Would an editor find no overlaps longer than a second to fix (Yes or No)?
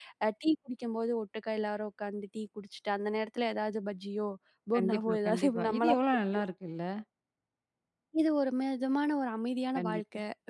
No